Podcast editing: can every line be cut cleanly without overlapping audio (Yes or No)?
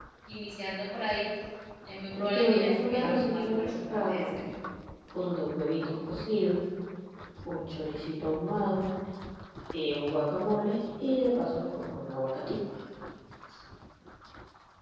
No